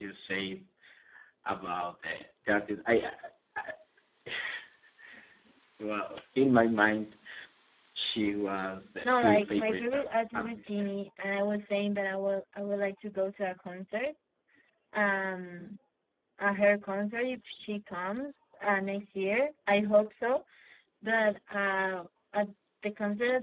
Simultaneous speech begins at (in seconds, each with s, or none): 9.0 s